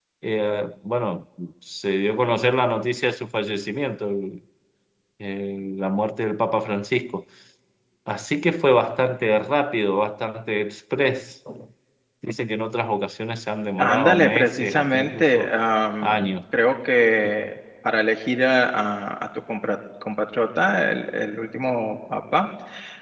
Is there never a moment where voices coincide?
No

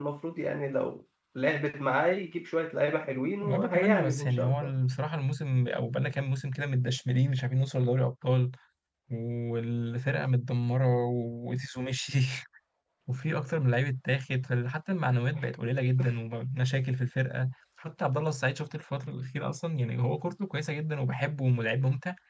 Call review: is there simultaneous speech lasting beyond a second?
Yes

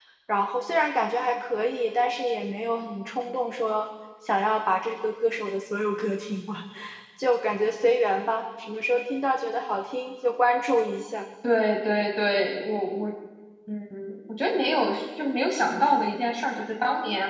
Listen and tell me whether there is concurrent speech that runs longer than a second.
No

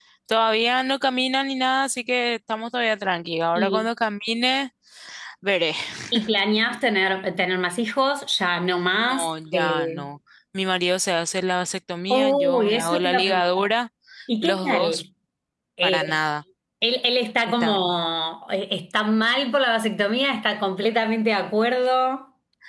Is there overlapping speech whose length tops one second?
Yes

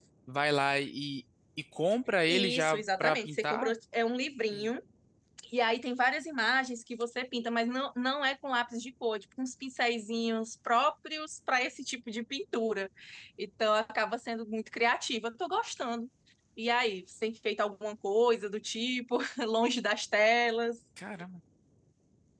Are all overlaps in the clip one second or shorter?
No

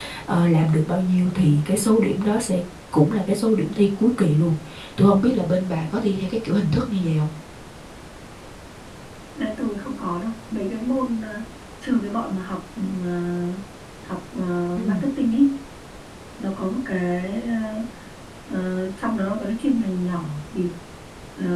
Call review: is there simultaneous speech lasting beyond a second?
No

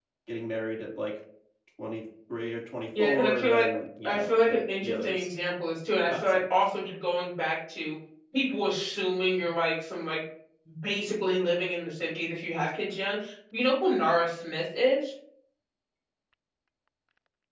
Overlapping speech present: Yes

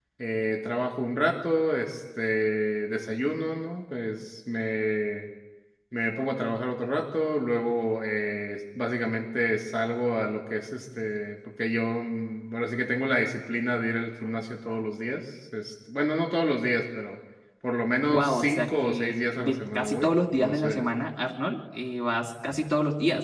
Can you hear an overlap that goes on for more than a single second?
Yes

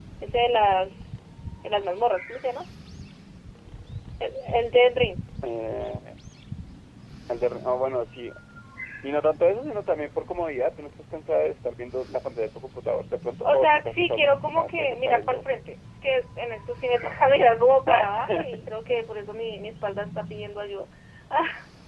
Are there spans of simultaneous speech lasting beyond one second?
Yes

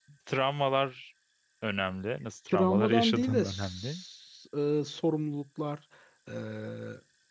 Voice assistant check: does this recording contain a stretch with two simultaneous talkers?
Yes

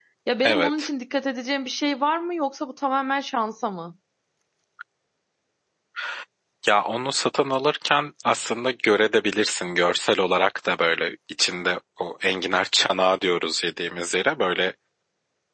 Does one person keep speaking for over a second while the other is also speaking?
No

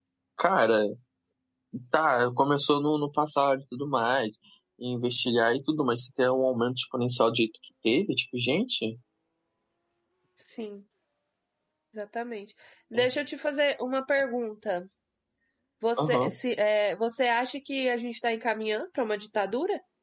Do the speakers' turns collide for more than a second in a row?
No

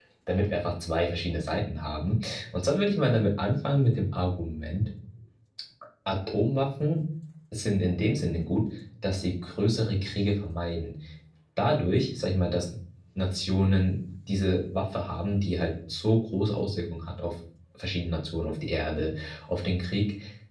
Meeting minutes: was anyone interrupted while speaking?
No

